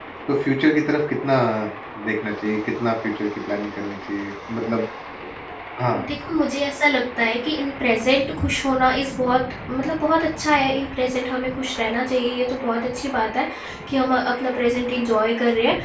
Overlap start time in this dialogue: none

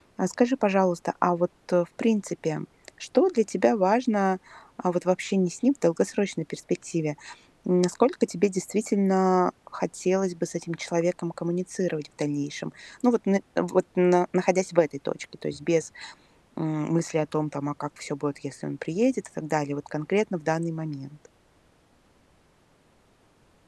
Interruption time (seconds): none

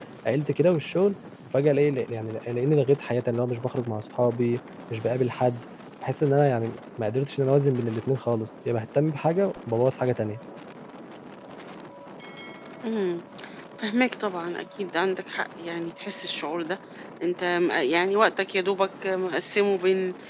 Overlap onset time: none

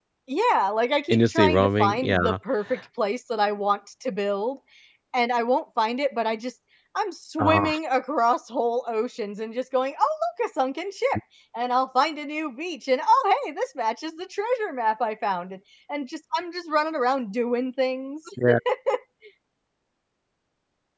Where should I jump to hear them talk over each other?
1.1 s

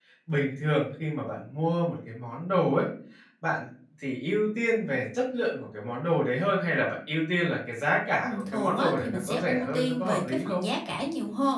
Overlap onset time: 8.5 s

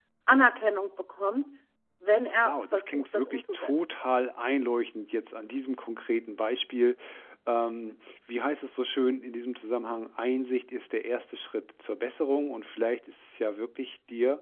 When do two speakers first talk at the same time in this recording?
2.4 s

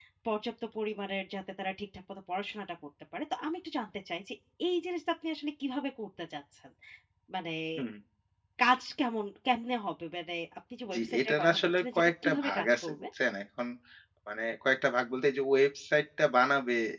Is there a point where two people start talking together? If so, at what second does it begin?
10.9 s

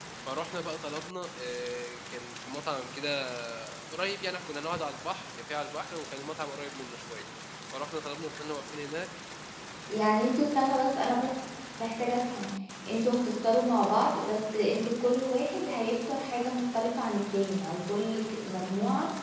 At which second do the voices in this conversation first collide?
none

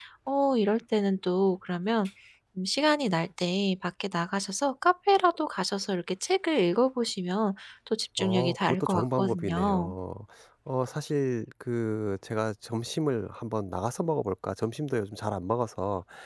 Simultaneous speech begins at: 8.2 s

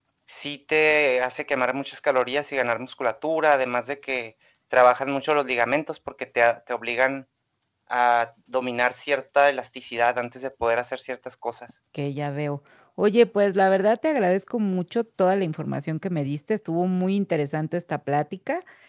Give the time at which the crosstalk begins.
none

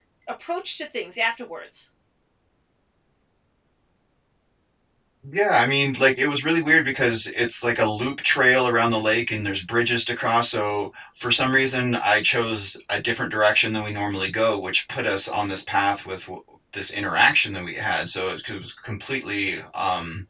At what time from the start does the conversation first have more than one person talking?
none

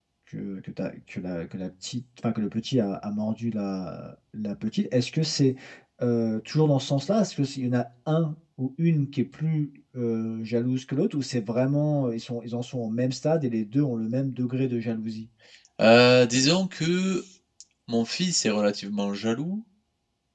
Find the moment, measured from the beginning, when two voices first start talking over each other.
none

